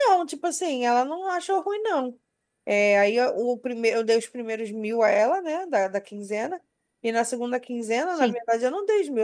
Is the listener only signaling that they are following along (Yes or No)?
Yes